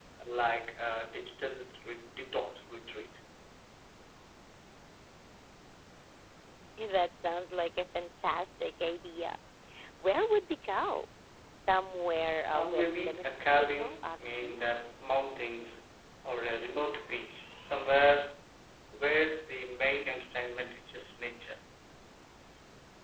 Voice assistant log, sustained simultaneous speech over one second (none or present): present